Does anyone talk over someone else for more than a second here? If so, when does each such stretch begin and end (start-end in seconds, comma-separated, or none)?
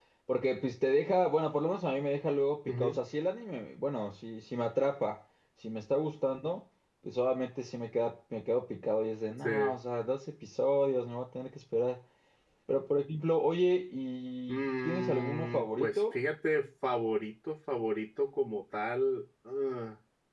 14.5-16.2